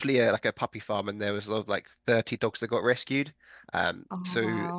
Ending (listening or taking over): listening